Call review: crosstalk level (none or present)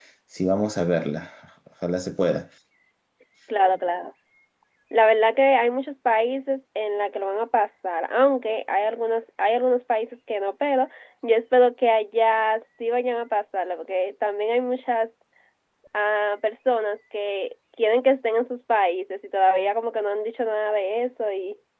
none